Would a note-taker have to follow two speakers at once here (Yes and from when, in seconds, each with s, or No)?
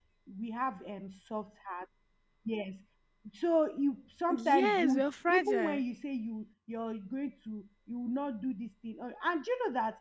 Yes, from 4.3 s